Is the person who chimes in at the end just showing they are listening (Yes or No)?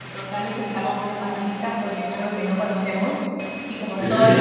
Yes